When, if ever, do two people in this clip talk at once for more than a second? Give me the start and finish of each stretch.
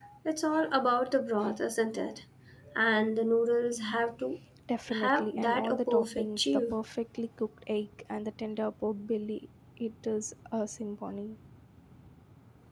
5.0-6.8

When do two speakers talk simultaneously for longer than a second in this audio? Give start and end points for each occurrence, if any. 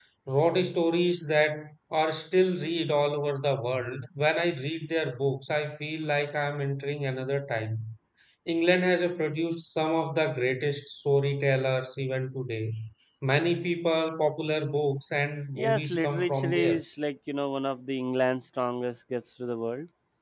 15.6-16.8

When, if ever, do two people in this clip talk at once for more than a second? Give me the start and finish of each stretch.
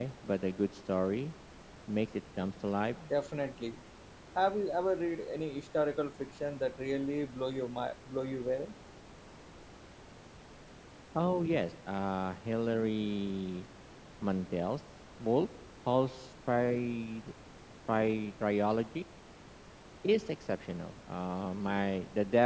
none

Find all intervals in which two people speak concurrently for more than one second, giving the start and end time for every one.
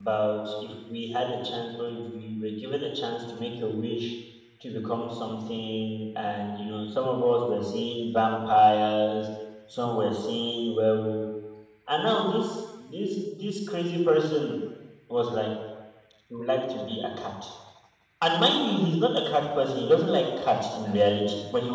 none

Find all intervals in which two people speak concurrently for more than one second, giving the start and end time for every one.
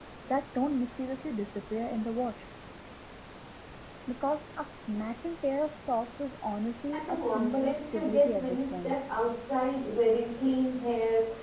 6.9-8.9

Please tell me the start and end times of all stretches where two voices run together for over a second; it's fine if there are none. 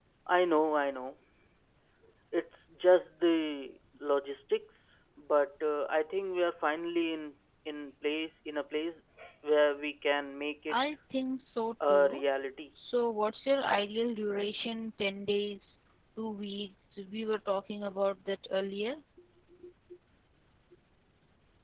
none

